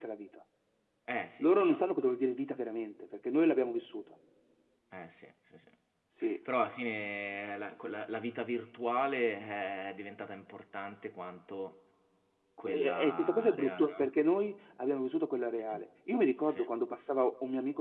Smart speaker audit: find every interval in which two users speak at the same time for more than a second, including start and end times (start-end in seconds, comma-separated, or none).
12.6-14.1